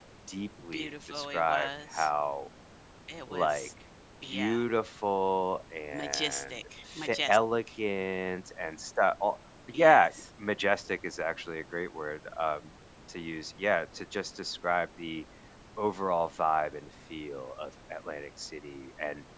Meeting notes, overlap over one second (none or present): present